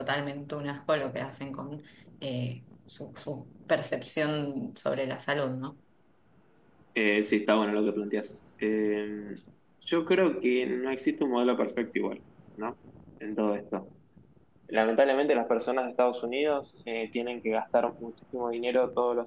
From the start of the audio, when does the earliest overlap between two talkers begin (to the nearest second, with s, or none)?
none